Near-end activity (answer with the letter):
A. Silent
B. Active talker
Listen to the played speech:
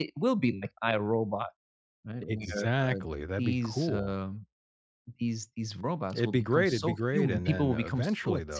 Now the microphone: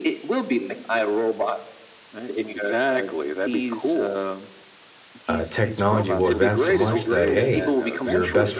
B